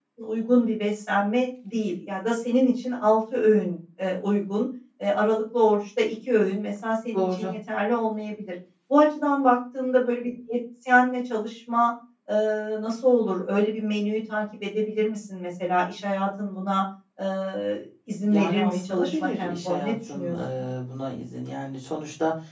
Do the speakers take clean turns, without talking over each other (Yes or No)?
No